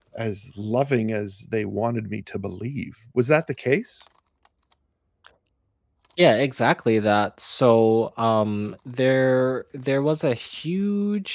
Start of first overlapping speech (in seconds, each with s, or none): none